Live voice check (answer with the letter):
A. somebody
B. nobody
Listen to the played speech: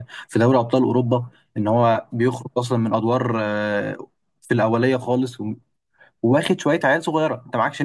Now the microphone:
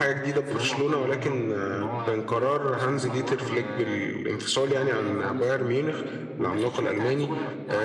A